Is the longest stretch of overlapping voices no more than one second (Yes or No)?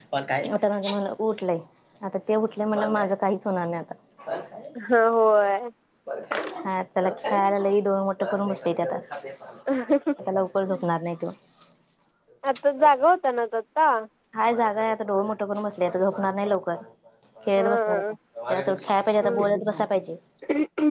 Yes